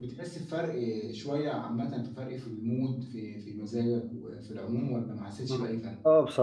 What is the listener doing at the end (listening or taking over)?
taking over